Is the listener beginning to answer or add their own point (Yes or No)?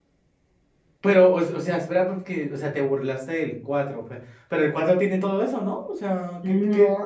Yes